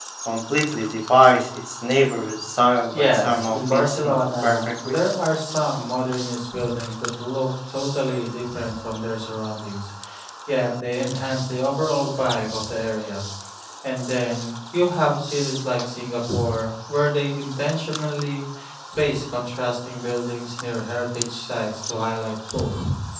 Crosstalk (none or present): present